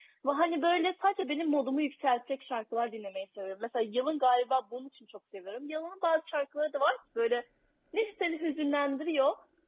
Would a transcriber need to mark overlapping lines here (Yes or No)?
No